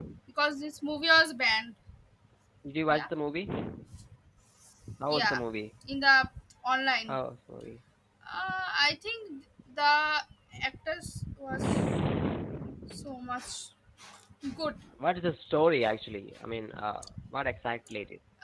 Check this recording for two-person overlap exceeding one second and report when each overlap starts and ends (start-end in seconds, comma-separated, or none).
none